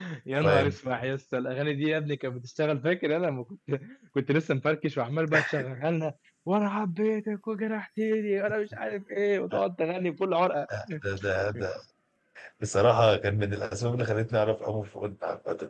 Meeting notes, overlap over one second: none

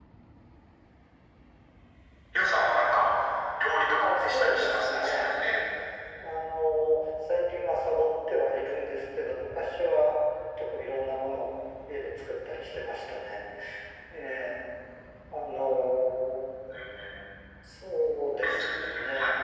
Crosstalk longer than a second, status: present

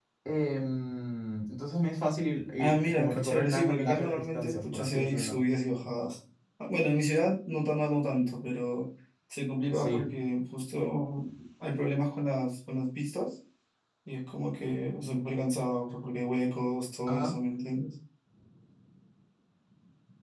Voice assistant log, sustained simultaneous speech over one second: present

